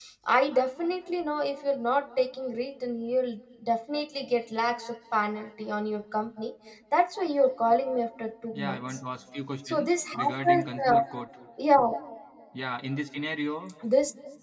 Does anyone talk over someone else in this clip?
Yes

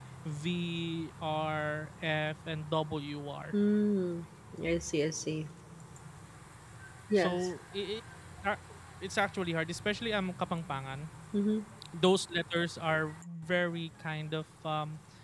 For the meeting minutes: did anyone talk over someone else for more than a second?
No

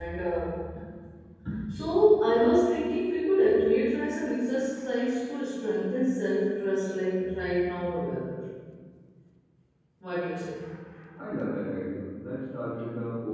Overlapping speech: No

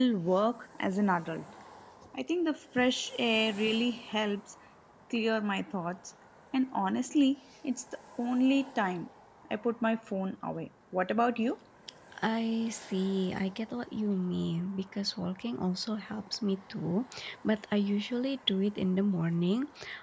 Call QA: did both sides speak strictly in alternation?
Yes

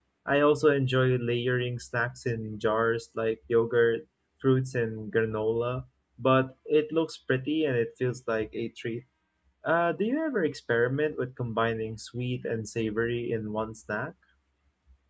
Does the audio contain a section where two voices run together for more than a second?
No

